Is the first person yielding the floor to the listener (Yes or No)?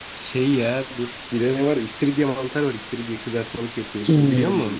Yes